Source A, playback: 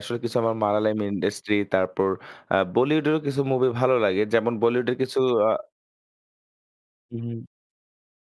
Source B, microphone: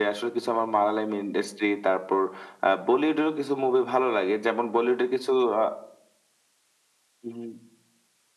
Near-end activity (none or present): none